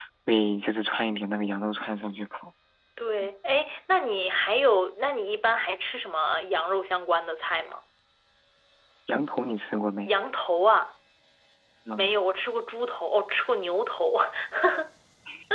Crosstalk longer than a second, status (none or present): none